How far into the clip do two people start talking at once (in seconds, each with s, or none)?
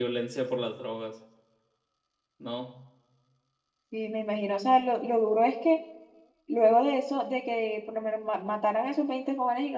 none